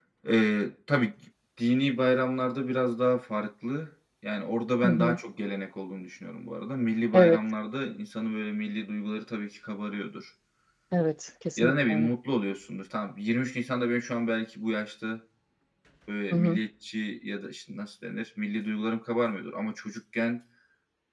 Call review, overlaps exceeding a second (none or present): none